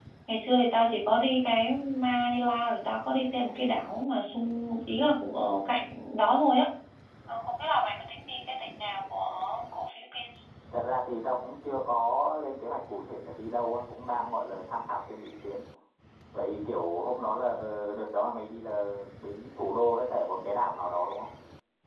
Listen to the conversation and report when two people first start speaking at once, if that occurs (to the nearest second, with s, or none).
none